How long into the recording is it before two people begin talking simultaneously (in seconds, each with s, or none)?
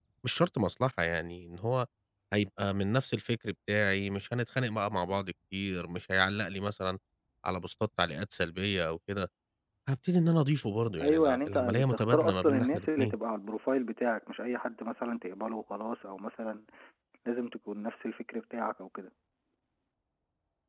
11.0 s